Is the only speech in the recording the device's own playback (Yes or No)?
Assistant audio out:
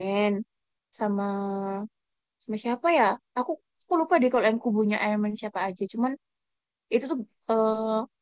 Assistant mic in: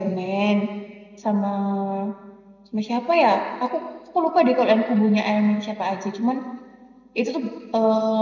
Yes